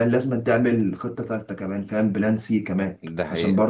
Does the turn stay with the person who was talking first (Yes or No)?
Yes